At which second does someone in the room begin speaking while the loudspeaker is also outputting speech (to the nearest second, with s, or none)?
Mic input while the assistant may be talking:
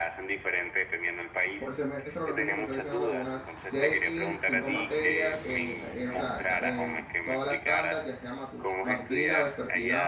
2 s